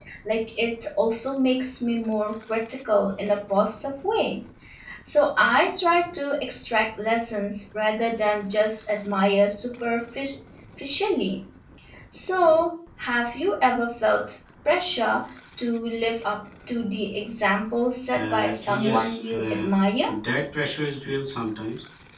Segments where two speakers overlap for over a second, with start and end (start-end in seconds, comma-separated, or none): 18.1-19.7